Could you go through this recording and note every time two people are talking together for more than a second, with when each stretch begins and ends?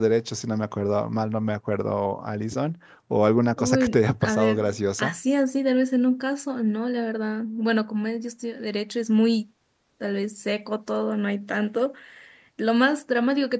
3.6-5.2

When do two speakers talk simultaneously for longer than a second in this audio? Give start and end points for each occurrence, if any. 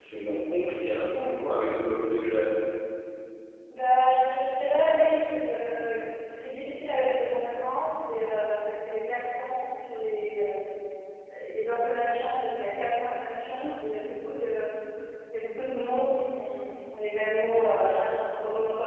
none

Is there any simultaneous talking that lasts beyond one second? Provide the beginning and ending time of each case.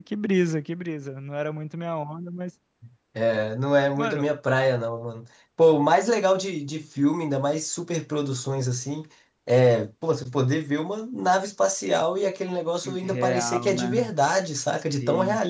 12.8-14.1

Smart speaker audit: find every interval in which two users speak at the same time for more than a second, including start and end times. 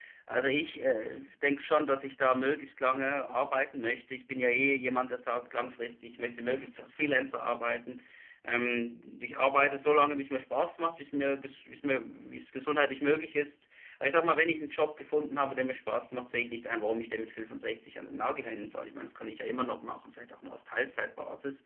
none

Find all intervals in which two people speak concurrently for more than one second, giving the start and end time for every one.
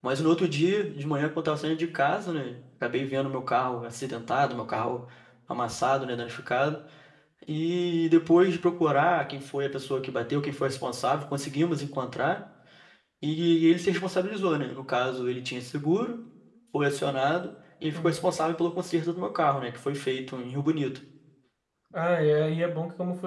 none

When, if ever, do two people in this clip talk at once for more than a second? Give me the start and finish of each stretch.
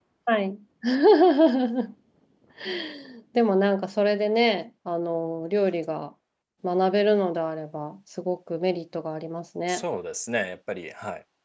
none

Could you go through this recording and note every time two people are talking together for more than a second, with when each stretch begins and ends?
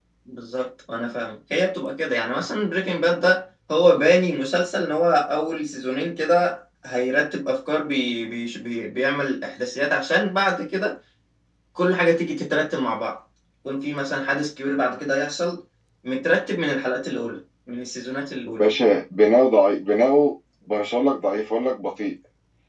none

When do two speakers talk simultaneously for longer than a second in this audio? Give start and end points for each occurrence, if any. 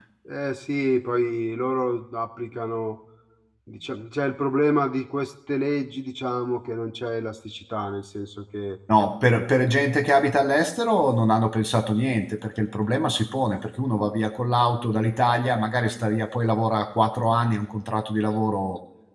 none

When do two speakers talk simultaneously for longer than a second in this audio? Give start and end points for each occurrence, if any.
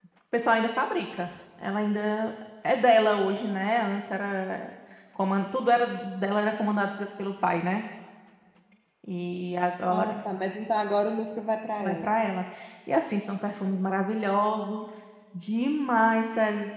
none

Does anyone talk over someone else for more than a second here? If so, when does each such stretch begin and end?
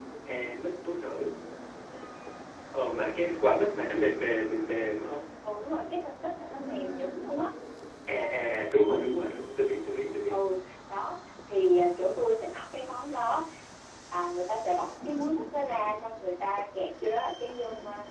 none

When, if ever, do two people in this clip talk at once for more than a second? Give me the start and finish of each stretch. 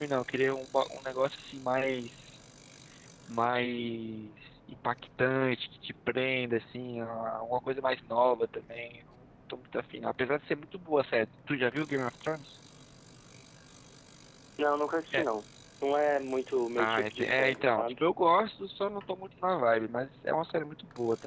16.8-18.0

